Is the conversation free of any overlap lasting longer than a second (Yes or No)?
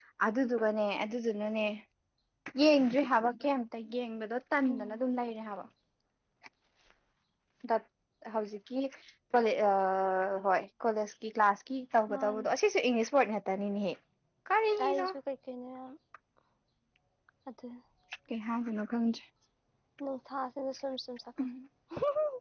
Yes